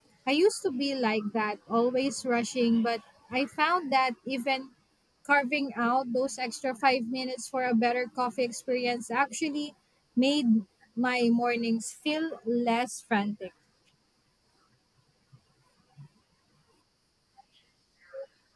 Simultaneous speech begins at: none

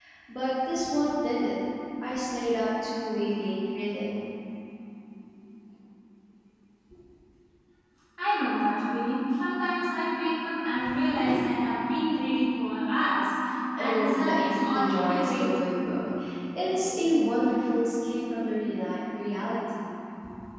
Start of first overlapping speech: 14 s

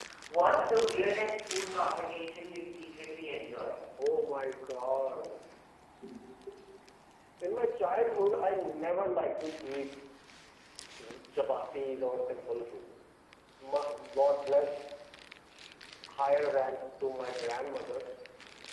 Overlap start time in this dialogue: none

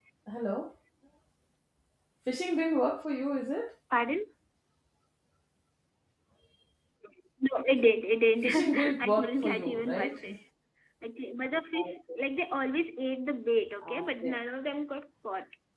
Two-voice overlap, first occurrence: 8 s

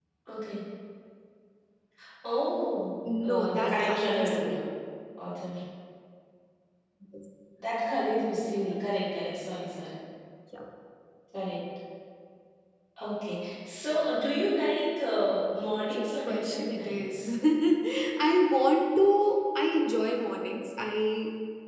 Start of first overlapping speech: 3 s

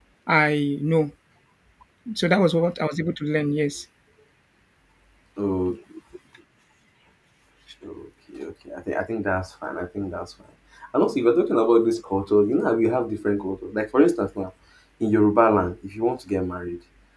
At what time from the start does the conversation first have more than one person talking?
none

